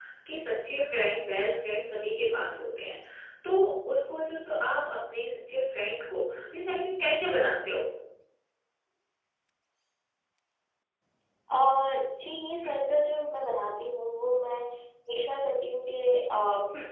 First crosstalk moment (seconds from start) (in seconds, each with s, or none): none